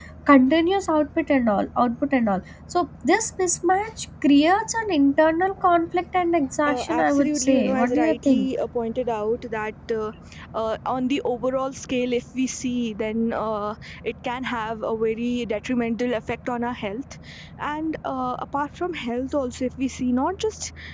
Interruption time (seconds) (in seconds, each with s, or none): 6.7 s